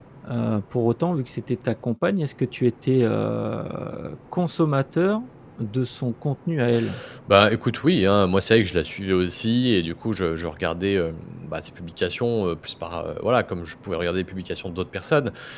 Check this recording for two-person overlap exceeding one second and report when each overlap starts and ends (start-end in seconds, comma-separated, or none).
none